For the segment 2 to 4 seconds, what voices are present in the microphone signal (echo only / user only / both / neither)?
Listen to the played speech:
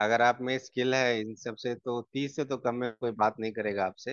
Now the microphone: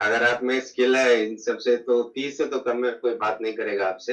echo only